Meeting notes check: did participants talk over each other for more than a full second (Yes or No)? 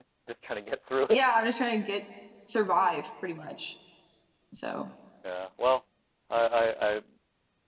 No